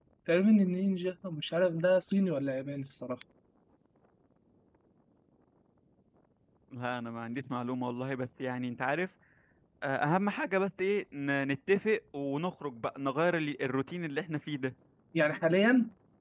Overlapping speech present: No

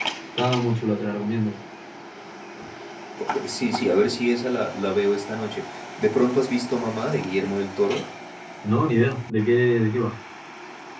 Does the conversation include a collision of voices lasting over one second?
No

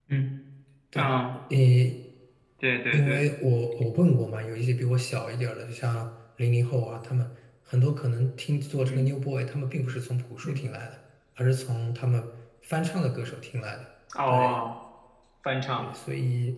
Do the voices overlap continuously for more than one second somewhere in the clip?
No

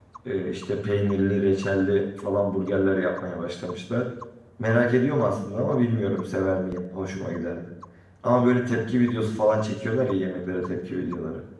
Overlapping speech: No

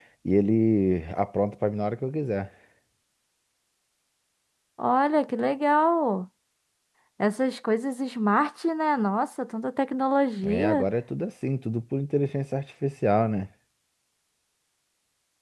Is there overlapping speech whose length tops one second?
No

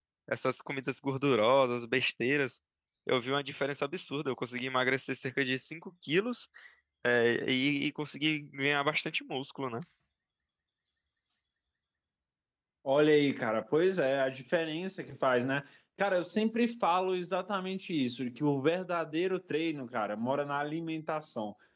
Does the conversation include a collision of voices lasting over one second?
No

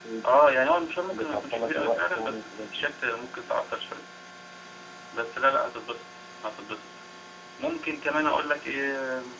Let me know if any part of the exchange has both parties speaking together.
Yes, from 1.1 s

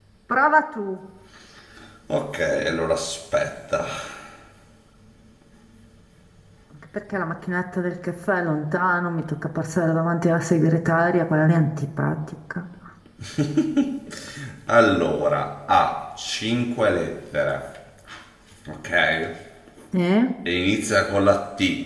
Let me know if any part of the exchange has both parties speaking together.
No

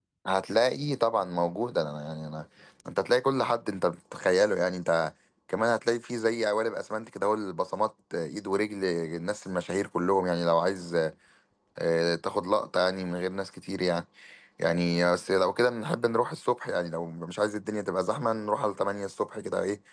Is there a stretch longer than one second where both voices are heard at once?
No

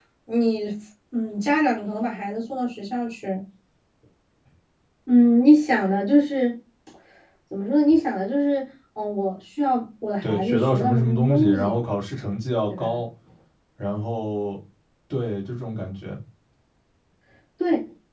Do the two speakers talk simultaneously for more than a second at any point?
Yes, from 10.2 s

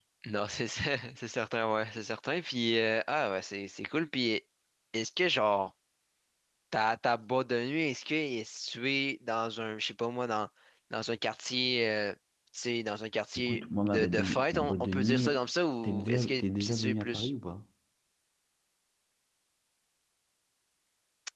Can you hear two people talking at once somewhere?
Yes, from 13.4 s

